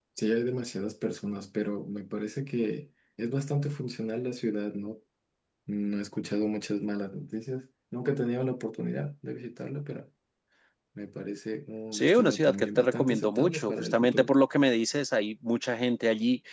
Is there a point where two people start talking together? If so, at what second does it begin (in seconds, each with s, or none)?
11.9 s